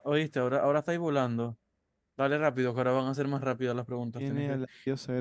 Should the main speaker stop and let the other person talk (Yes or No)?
Yes